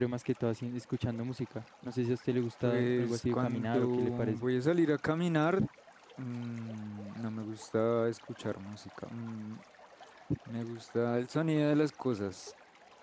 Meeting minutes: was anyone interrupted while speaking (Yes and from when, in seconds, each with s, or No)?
Yes, from 2.6 s